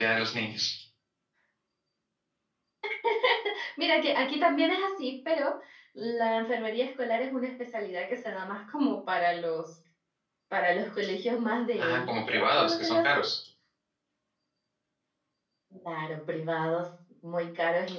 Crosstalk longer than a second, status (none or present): present